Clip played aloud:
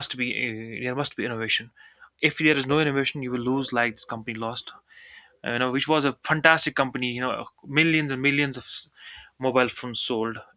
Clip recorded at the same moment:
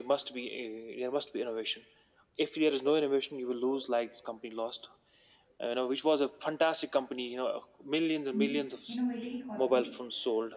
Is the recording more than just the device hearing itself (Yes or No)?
Yes